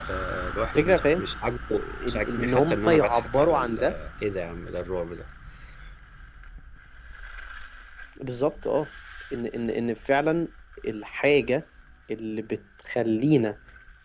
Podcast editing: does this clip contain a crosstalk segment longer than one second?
Yes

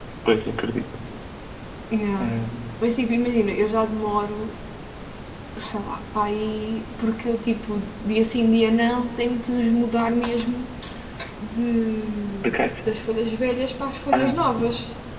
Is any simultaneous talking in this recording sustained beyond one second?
No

